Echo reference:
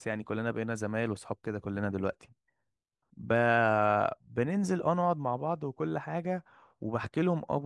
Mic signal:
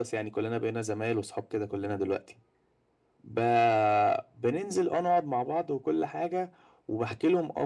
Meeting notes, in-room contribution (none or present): none